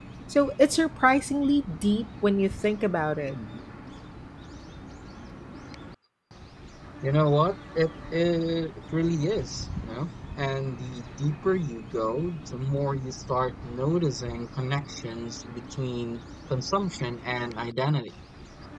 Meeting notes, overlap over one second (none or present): none